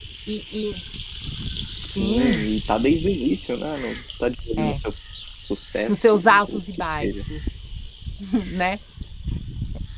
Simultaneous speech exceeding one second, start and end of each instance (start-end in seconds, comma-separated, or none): 5.9-7.1